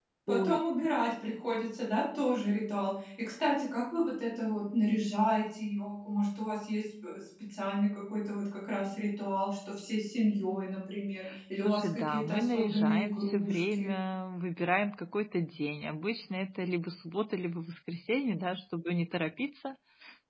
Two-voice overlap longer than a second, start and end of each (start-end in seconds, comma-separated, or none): 11.6-13.9